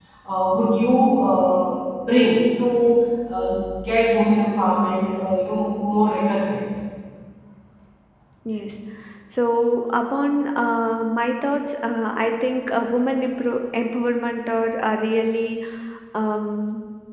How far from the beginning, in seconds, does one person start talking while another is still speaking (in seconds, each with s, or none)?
none